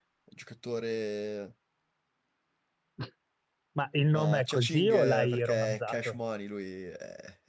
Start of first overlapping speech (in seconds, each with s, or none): 4.1 s